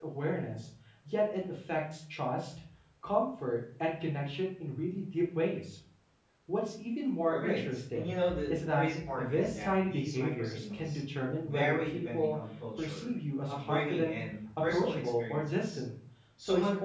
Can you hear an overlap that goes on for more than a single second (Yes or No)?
Yes